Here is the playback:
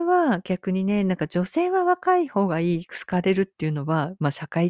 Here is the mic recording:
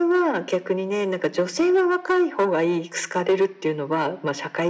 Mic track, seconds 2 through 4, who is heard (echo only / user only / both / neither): echo only